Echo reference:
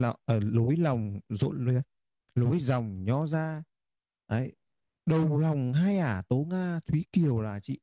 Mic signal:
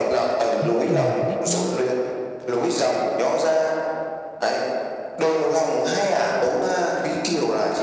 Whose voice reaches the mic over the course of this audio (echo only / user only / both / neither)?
both